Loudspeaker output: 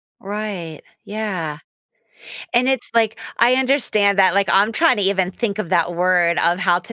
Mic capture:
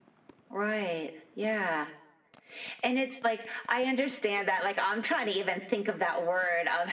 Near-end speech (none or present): none